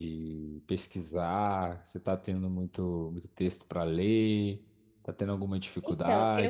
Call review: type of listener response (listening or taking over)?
taking over